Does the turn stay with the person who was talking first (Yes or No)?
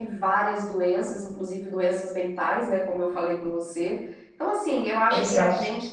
Yes